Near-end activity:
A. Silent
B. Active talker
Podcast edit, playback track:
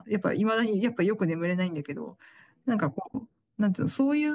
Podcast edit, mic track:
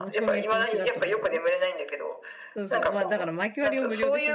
B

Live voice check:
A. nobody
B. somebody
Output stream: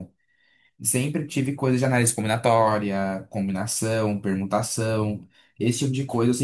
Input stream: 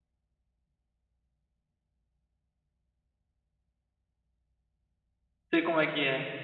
B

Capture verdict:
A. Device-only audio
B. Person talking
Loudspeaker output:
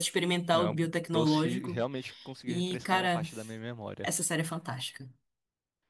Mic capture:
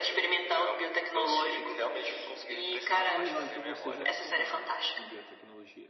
B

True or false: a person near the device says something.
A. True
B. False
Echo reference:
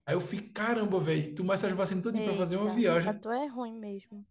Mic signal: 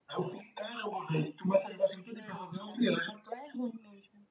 B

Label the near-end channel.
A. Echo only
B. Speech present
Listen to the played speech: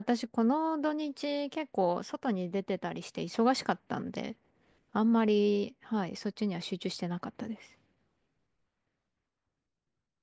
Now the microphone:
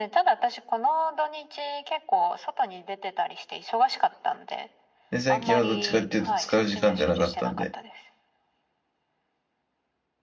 B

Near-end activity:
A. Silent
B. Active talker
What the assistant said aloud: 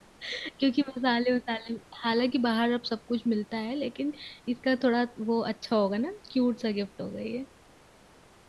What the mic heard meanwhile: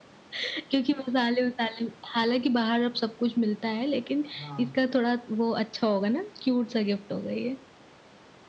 B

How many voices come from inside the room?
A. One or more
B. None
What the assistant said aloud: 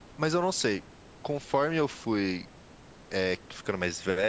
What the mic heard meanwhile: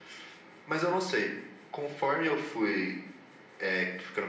B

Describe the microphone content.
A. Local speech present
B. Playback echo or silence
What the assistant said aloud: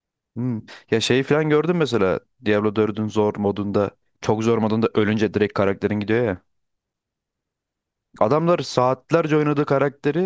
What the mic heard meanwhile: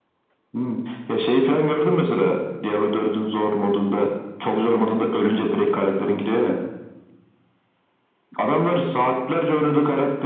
B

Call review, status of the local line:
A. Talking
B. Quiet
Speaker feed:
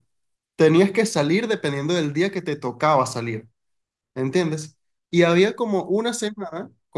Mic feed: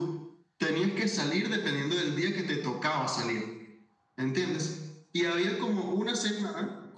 B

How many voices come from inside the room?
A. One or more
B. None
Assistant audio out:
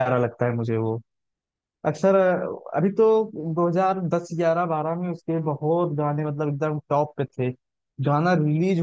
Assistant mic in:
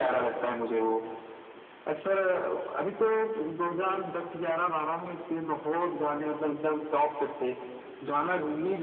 B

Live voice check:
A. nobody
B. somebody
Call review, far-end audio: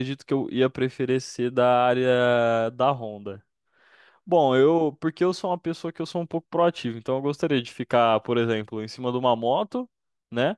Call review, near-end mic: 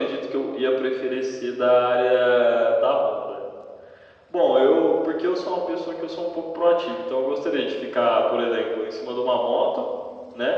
A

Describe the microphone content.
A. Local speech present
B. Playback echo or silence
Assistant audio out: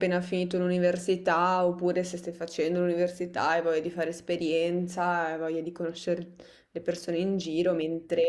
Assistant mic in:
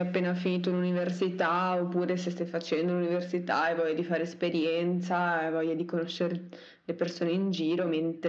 B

